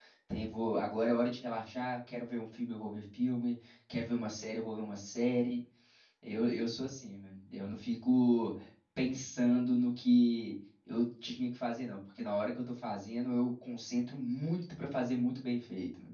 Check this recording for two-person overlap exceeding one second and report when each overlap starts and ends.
none

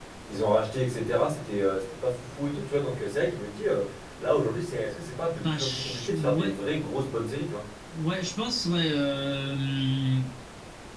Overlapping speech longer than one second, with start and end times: 5.3-6.6

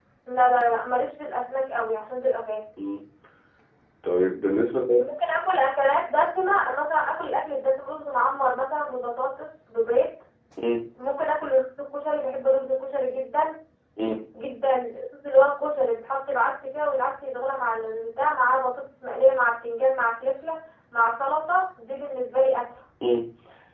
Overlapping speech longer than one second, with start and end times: none

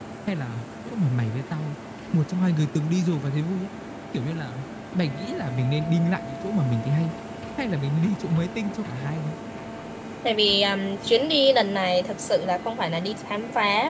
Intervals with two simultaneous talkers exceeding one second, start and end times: none

